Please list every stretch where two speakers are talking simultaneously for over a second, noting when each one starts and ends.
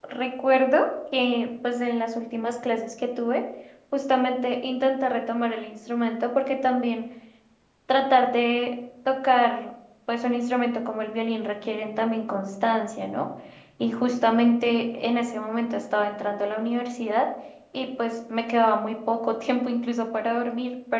none

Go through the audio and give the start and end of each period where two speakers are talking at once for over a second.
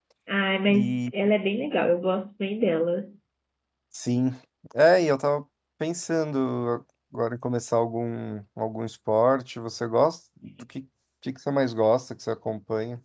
none

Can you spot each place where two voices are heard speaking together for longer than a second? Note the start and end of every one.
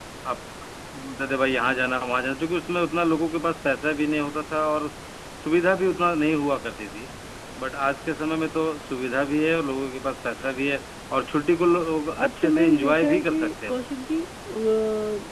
12.2-13.7

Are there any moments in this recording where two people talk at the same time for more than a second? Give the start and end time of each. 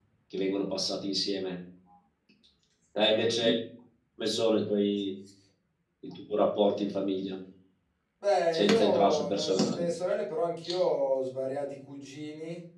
8.5-9.8

